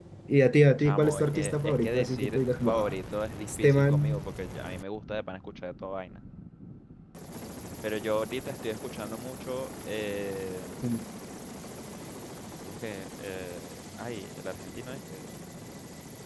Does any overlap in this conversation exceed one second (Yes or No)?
Yes